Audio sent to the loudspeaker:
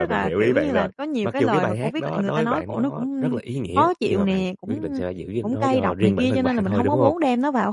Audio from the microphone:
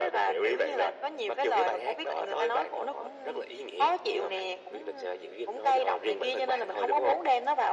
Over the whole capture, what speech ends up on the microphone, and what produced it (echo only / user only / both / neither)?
echo only